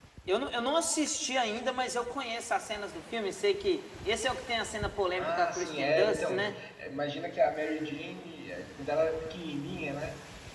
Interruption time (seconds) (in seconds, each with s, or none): 5.1 s